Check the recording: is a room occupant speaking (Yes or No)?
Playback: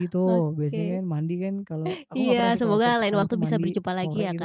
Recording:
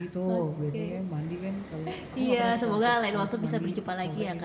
No